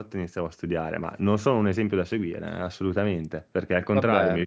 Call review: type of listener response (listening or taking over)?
listening